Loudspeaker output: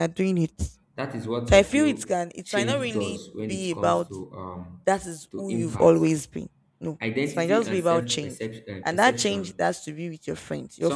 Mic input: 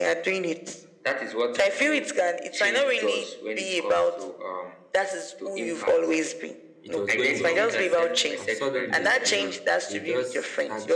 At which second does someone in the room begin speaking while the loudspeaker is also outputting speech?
6.8 s

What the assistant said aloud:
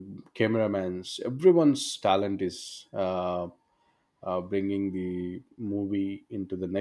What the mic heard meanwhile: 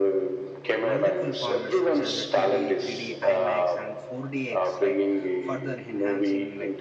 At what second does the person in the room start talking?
0.9 s

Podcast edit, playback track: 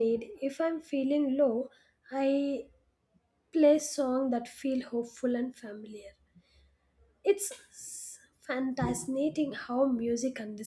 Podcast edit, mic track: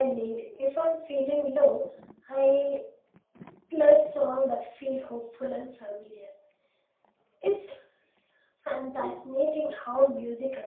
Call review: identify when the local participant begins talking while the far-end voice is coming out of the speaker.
none

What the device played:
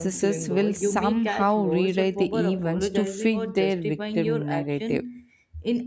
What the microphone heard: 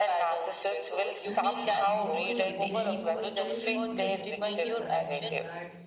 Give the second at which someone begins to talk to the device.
1.3 s

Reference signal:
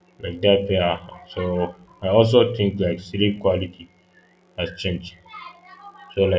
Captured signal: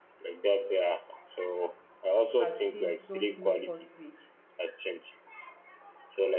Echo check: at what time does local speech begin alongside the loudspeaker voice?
2.4 s

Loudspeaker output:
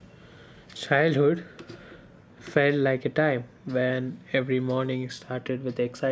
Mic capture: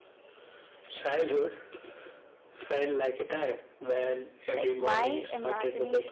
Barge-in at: 4.5 s

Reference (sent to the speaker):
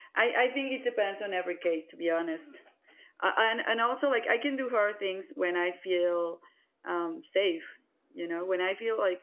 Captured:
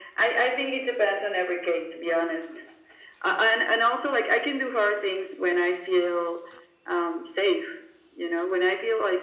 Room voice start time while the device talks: none

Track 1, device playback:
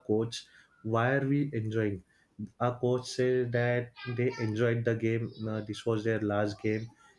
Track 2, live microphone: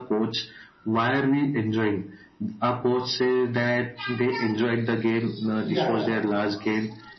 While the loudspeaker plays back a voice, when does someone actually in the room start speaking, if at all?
5.6 s

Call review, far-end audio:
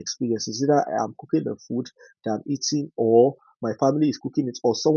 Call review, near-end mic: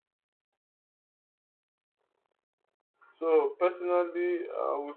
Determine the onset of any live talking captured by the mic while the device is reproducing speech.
3.1 s

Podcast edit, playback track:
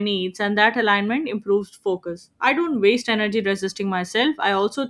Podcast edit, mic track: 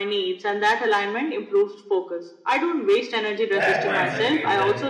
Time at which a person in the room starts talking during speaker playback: 3.5 s

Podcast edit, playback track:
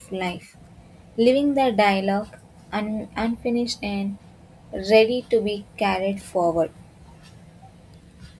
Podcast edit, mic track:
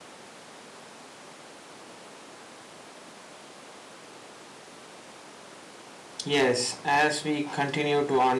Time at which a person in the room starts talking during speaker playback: 6.2 s

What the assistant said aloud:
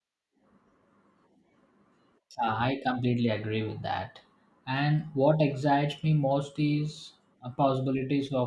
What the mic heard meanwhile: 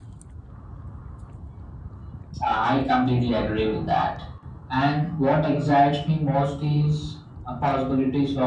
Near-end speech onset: none

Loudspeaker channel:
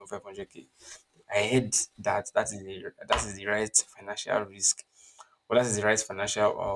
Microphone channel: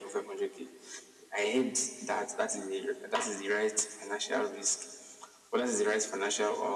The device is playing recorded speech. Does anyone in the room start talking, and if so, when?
none

